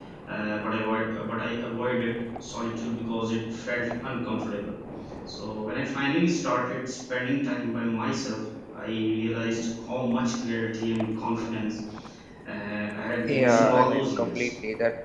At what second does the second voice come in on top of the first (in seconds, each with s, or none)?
13.3 s